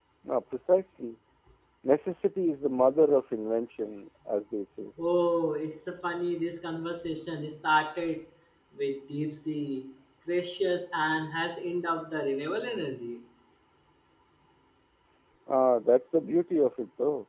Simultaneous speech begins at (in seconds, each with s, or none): none